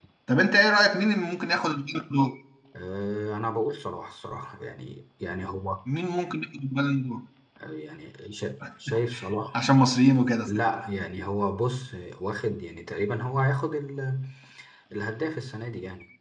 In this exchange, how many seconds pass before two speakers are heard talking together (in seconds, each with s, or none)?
none